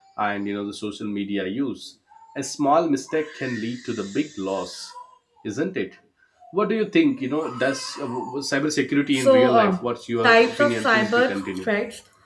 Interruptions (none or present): present